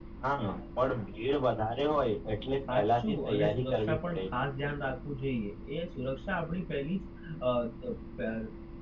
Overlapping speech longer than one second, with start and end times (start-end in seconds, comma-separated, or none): 2.7-4.2